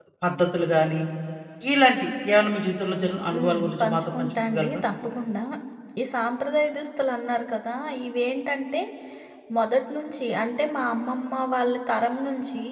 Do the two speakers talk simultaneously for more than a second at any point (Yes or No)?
Yes